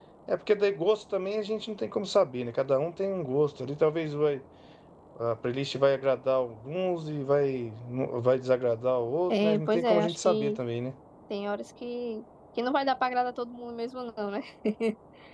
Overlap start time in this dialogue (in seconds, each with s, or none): 9.3 s